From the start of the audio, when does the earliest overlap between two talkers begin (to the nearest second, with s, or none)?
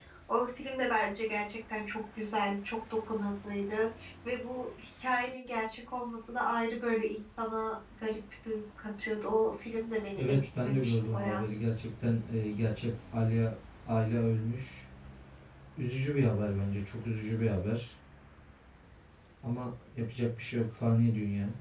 10 s